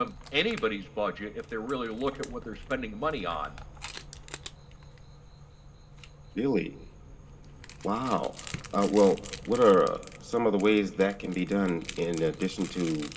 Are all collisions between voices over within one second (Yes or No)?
Yes